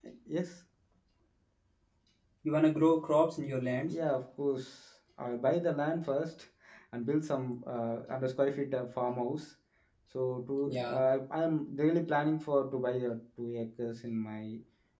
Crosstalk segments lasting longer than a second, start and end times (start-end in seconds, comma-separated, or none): none